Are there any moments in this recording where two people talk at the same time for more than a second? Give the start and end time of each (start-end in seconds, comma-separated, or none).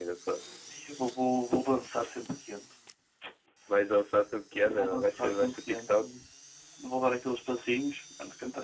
4.6-6.0